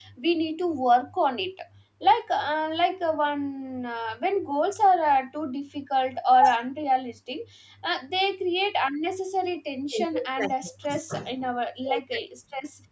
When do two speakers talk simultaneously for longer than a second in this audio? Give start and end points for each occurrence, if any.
9.9-11.2

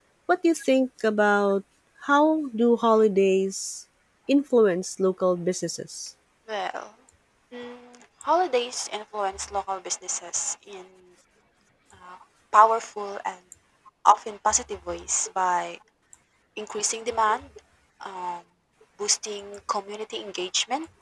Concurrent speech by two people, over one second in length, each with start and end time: none

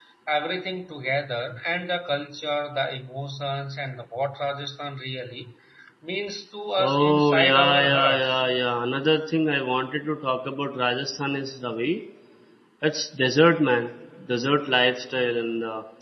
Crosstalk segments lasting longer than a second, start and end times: 6.8-8.3

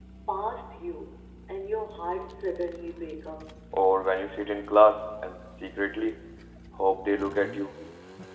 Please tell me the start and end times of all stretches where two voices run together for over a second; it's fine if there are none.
none

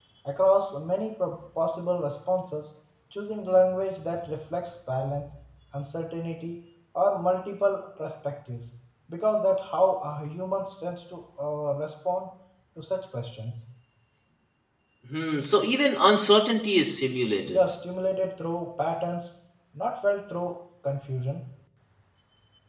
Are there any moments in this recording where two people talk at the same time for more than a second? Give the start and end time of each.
none

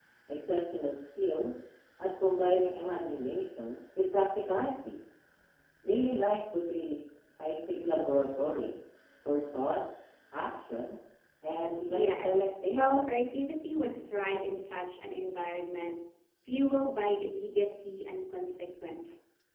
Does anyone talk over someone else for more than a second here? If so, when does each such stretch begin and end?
11.9-13.1

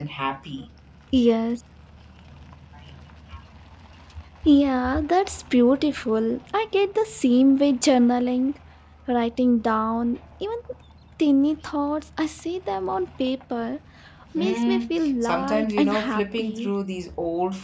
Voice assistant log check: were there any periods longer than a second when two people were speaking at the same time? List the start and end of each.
14.3-16.7

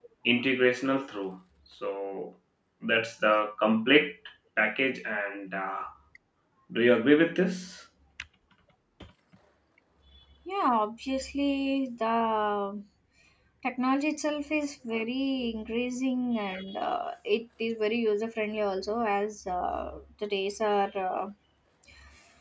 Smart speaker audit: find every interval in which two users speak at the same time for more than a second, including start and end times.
none

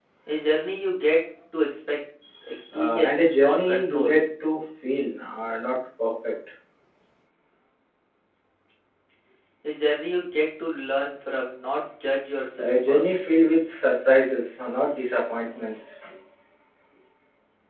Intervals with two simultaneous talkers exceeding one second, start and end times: 2.7-4.1

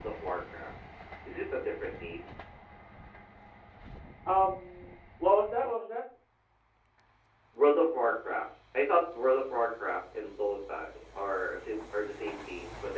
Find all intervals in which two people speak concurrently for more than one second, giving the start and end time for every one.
none

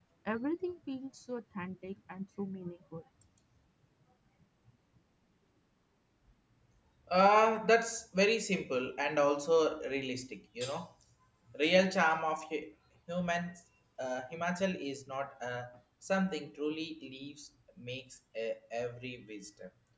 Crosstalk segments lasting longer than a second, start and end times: none

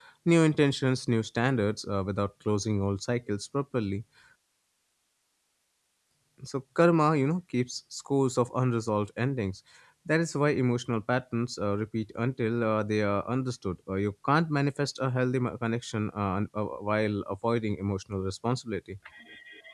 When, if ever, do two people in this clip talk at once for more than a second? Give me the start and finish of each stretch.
none

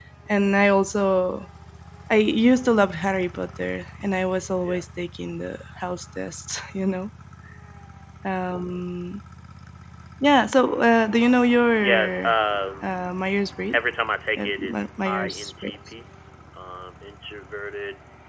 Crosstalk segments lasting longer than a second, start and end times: 14.4-15.7

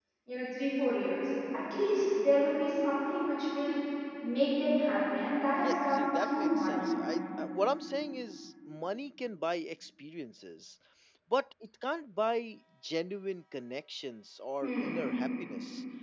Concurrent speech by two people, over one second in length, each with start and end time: 5.6-6.9

